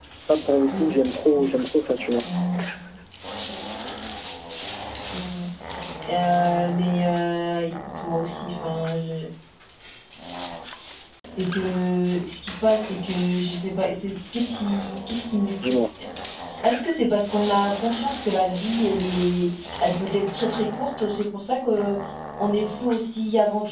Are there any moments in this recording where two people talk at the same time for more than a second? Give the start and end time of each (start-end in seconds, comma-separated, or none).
none